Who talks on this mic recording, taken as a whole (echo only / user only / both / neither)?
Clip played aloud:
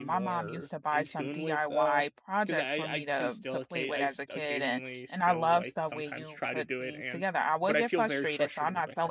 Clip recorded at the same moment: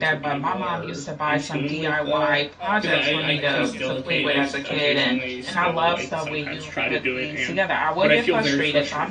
both